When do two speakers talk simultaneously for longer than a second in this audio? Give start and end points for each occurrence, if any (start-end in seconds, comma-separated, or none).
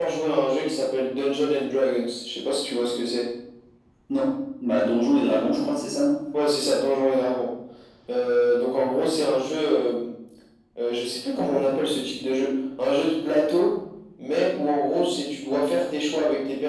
none